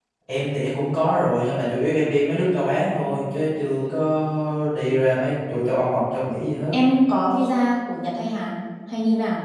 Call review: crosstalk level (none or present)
none